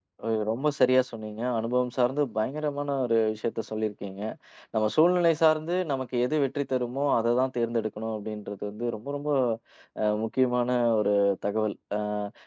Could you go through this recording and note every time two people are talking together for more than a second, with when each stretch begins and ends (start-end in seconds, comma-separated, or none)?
none